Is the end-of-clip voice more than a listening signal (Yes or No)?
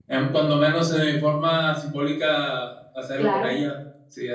No